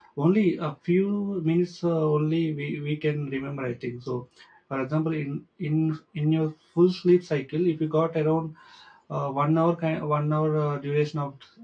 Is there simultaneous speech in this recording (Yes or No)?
No